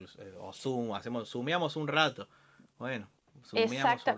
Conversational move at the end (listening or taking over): taking over